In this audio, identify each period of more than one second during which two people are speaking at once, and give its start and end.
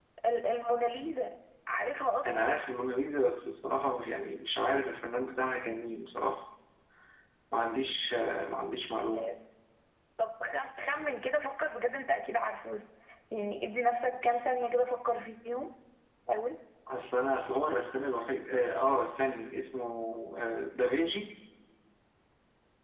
none

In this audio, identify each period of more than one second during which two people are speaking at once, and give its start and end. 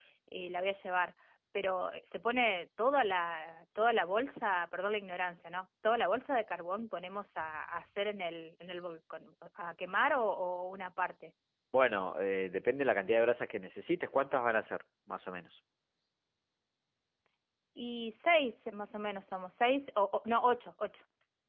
none

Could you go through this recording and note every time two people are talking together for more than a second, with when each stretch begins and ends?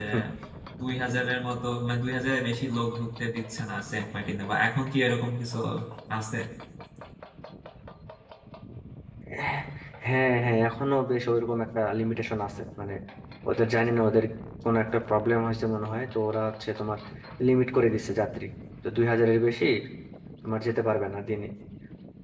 none

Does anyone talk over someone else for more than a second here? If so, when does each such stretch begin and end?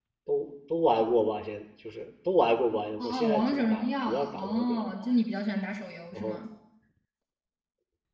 3.0-5.0

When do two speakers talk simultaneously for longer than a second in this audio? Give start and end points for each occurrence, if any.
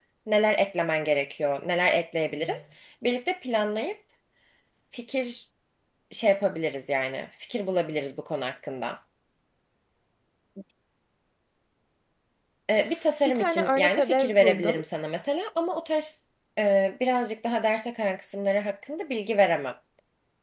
13.2-14.8

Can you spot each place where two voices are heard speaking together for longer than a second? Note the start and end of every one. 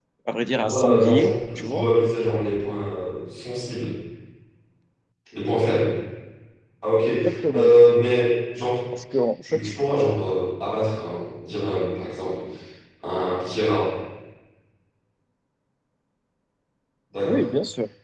0.5-1.9

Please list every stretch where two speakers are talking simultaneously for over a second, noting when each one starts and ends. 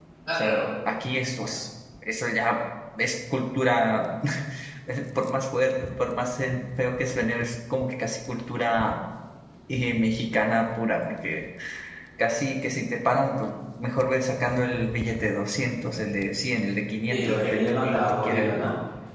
17.1-18.6

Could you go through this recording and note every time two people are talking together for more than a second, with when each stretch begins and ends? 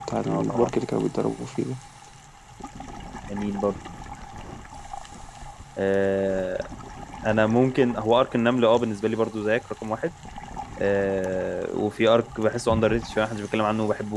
none

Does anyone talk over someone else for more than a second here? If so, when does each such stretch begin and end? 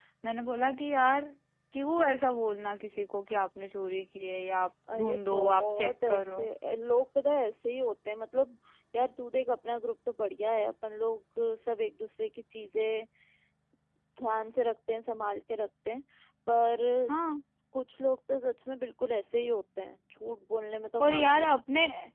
4.9-6.5

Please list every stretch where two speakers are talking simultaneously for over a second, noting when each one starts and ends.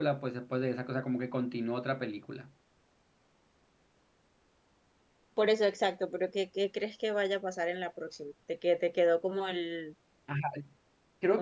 none

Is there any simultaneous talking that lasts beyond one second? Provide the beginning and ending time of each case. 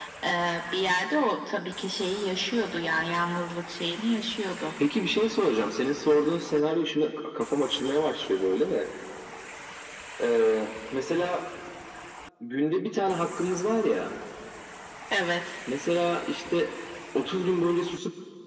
none

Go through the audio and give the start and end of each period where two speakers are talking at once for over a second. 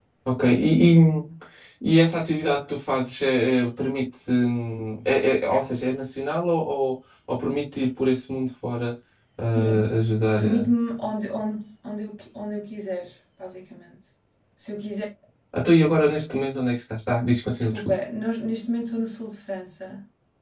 none

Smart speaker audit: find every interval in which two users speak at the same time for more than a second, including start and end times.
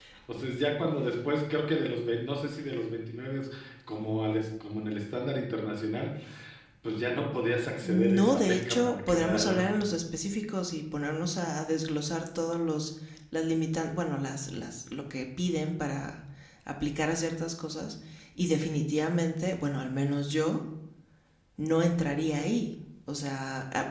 7.8-9.8

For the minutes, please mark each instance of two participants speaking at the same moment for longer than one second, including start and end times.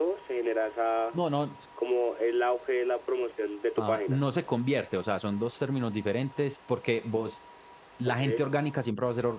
none

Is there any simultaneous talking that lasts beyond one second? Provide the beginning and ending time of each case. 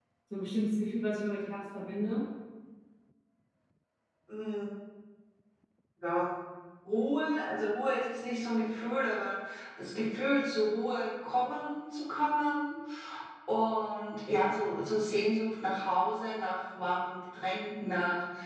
none

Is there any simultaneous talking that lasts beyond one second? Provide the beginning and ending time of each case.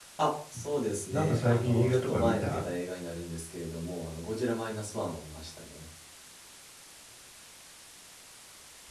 1.1-2.6

